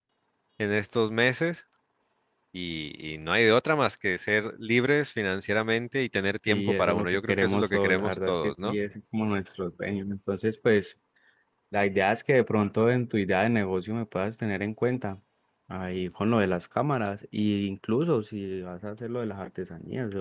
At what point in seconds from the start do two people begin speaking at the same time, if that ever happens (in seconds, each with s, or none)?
6.5 s